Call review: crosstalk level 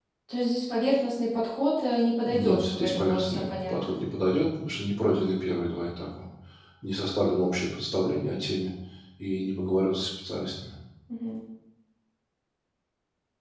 present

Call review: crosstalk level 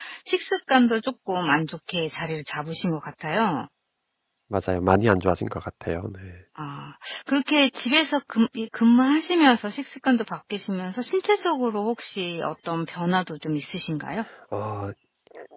none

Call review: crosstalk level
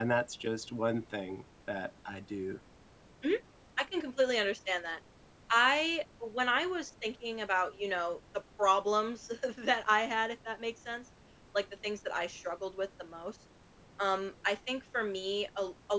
none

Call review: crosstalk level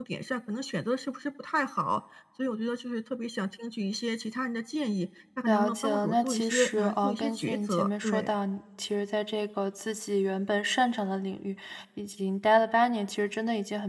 present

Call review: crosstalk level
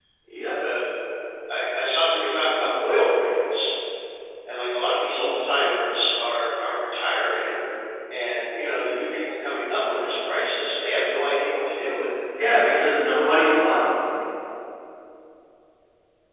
none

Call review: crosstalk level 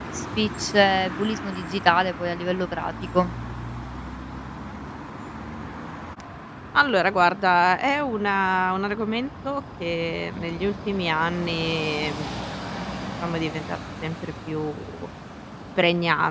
none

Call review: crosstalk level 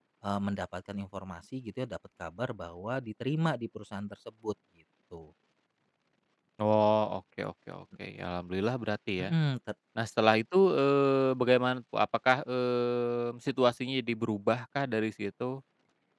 none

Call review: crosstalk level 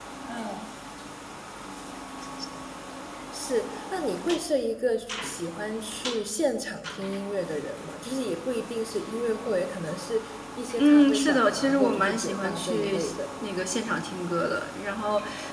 present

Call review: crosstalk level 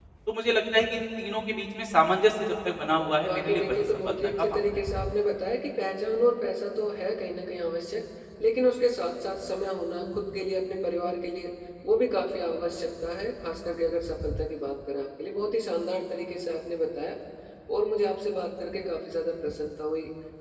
present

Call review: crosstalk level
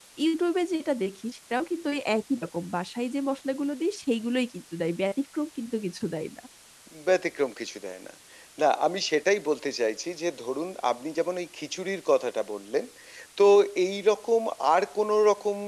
none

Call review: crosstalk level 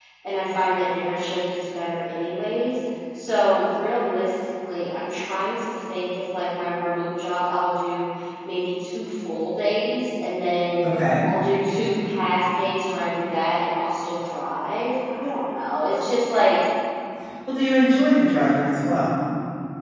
none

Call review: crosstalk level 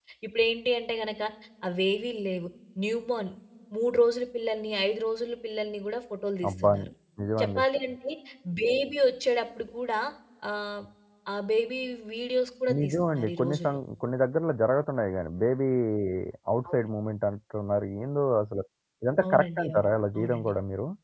present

